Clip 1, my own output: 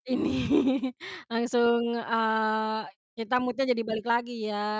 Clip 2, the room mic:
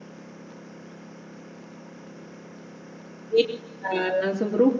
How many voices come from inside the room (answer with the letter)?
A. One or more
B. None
A